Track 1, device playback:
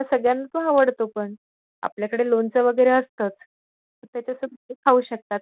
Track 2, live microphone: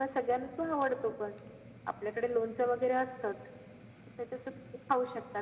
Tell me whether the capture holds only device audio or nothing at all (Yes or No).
Yes